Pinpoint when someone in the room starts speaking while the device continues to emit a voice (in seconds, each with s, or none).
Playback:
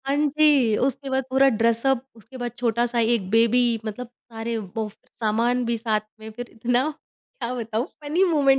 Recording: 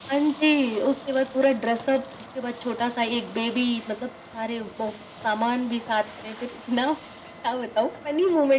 none